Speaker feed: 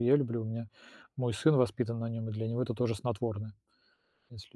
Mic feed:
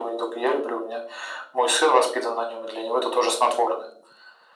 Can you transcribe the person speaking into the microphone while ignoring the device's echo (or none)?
none